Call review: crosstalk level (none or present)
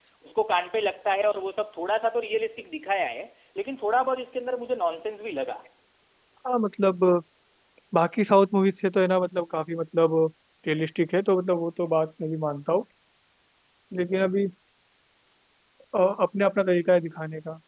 none